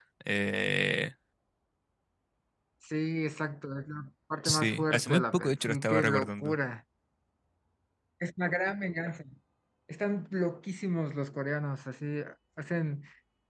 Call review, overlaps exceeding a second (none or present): present